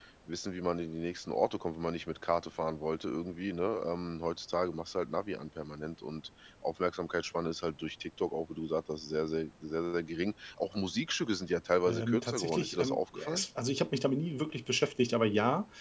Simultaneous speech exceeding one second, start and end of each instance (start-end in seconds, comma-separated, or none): 11.8-13.4